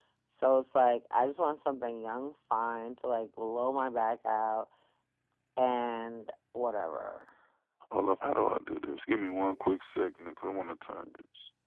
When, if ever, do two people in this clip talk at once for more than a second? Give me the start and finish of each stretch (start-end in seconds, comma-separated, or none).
none